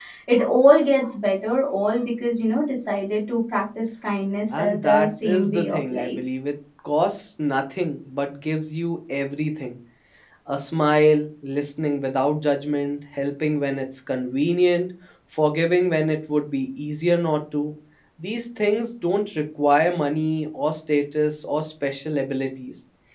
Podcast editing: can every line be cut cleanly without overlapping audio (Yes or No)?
No